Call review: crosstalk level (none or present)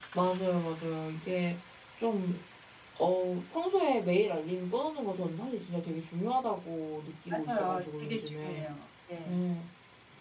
present